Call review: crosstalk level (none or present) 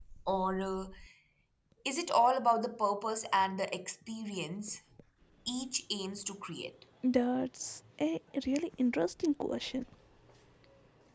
none